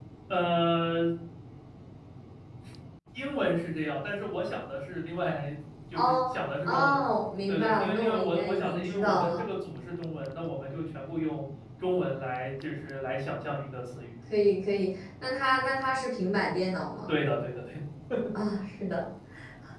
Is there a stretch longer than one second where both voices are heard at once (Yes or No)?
Yes